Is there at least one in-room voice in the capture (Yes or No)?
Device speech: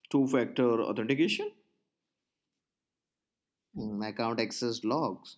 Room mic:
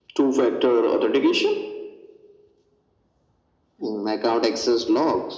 No